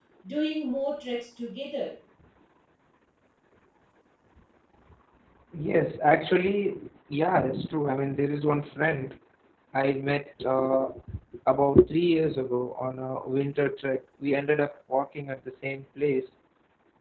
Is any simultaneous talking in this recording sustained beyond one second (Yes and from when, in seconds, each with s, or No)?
No